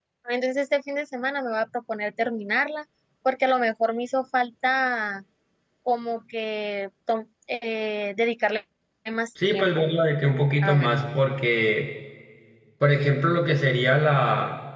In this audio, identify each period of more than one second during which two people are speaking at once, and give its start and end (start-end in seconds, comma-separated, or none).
none